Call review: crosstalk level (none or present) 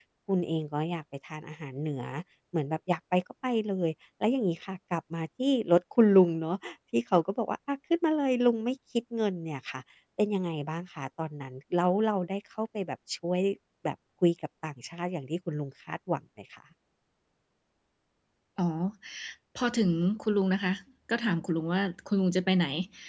none